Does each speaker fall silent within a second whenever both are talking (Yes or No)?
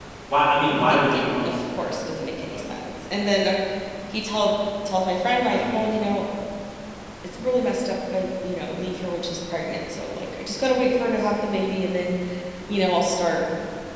No